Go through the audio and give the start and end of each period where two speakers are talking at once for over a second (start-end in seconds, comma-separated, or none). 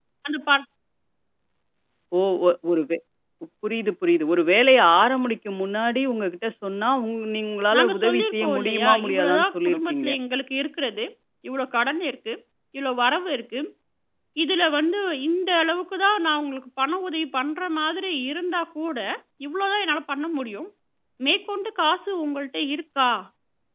7.7-10.1